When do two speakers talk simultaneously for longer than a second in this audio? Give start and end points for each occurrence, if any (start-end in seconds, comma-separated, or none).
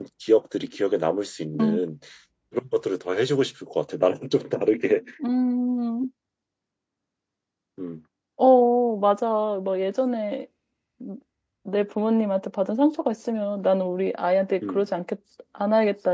none